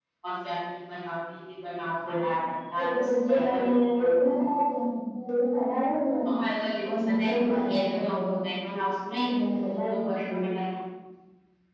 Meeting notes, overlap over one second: present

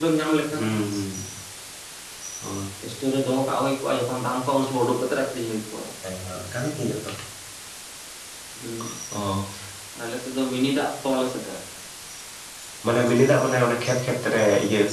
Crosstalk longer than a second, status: none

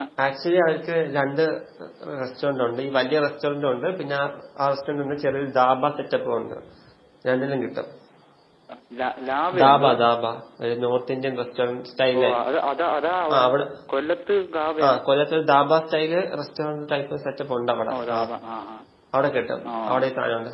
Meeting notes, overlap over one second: none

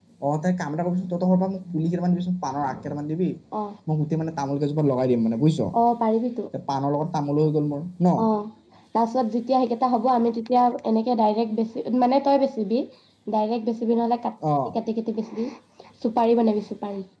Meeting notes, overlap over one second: none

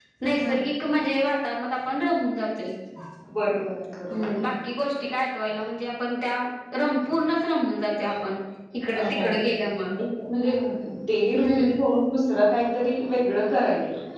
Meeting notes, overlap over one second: none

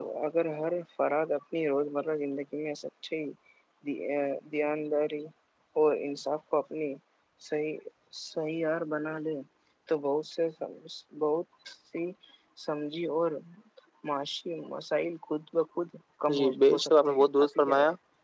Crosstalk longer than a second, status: present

